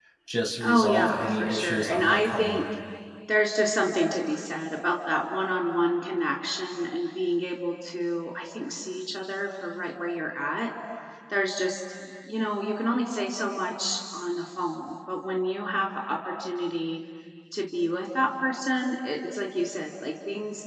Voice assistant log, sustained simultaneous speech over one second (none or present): present